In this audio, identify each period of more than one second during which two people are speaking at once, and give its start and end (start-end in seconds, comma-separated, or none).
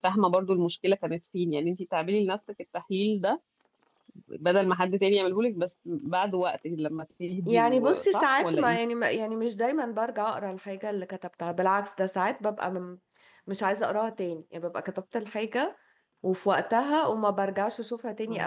7.5-8.8